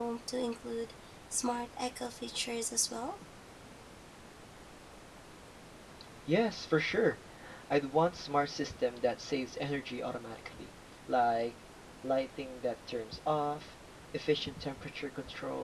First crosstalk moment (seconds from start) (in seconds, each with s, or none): none